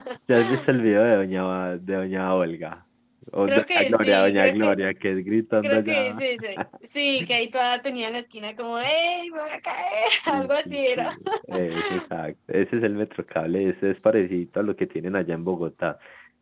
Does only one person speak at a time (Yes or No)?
No